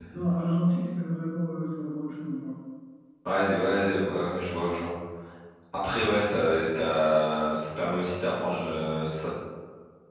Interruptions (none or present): none